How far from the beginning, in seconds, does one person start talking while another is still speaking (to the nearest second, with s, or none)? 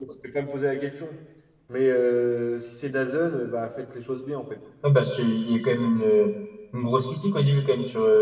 none